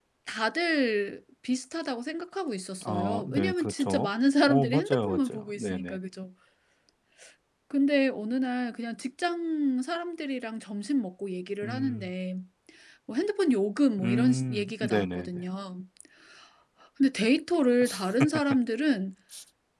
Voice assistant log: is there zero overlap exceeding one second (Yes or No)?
No